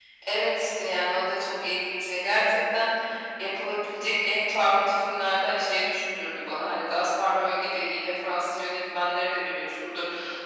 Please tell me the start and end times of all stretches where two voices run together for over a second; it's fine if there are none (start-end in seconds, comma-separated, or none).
none